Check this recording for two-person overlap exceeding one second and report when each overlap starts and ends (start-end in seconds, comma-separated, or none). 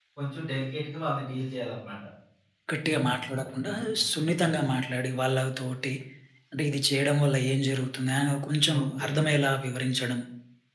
none